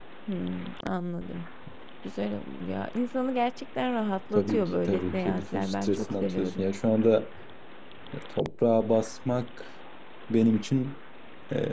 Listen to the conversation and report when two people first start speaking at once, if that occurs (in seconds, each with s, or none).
4.3 s